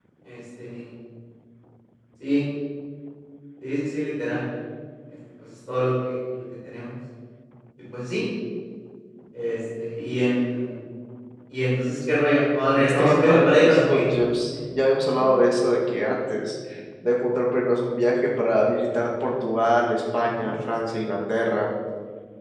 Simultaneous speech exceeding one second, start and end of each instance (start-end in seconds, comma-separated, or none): 12.8-14.1